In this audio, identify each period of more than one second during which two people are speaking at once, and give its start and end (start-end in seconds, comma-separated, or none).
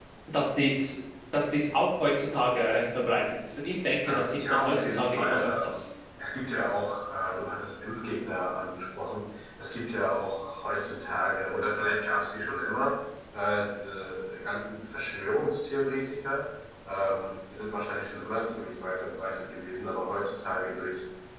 4.0-5.8